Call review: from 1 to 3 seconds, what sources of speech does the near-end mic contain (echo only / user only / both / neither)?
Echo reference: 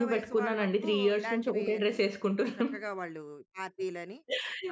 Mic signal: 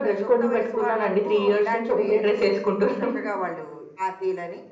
echo only